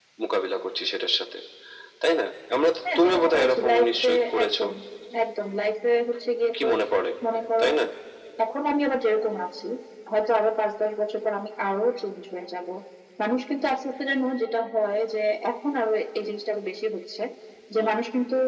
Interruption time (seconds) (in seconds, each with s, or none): 3.0 s